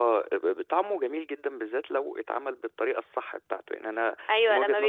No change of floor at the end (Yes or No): No